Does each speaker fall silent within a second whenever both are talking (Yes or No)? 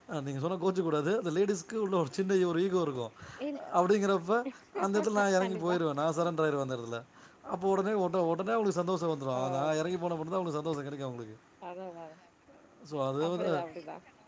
Yes